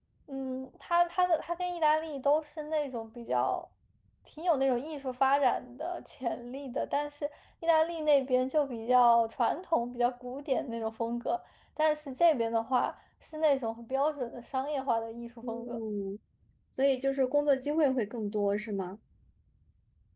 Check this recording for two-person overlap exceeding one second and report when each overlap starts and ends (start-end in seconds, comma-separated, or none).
none